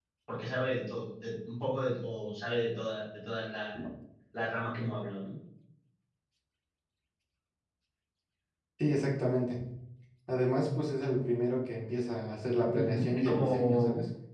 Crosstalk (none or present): present